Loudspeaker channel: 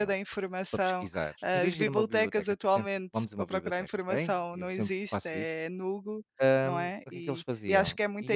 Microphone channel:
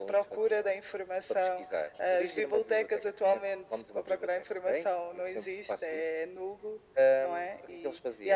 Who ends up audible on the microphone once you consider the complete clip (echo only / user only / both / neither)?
echo only